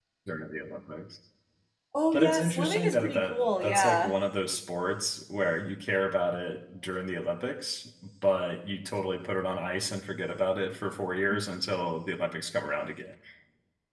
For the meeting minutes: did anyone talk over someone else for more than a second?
Yes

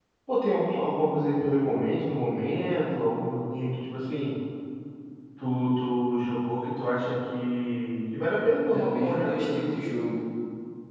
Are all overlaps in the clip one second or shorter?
No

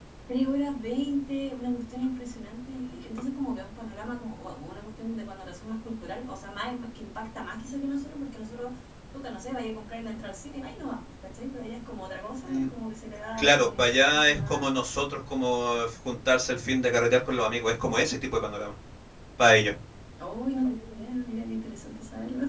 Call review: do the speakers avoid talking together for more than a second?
No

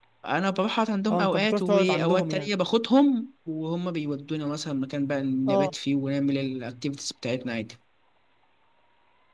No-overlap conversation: No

